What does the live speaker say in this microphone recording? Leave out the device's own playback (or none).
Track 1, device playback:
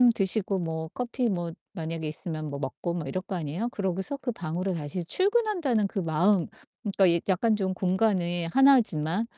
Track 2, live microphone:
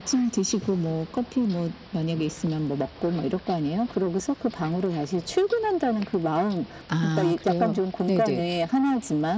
아 그래요? 네네.